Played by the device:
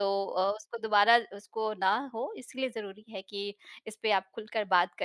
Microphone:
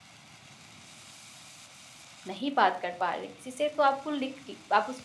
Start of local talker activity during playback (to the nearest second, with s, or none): 2 s